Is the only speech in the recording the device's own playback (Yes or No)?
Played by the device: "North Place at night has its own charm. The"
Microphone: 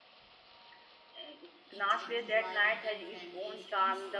No